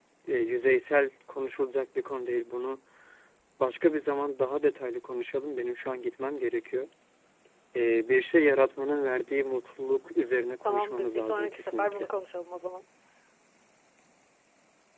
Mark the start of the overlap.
10.6 s

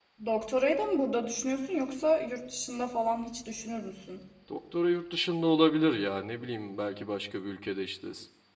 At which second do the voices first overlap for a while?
none

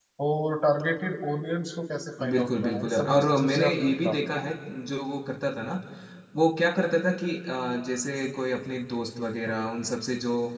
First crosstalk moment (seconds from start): 2.2 s

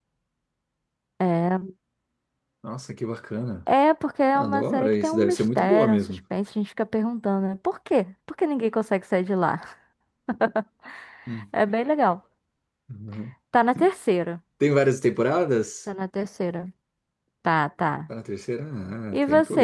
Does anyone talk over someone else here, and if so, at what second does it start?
4.3 s

